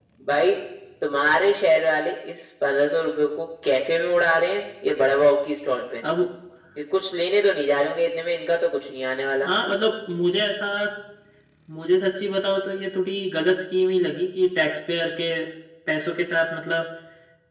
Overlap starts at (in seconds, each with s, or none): none